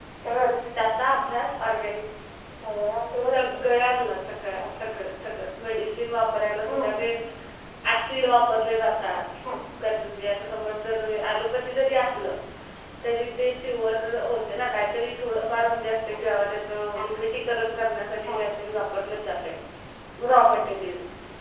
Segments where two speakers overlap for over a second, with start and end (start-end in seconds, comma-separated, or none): none